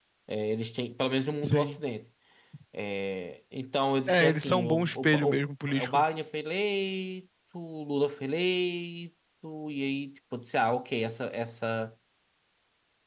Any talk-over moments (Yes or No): Yes